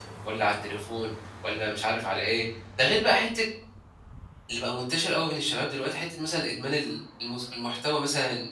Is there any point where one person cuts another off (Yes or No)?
No